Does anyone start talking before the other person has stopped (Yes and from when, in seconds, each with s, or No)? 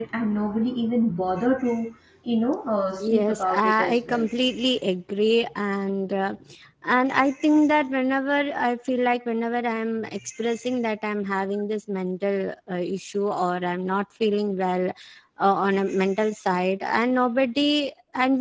Yes, from 3.0 s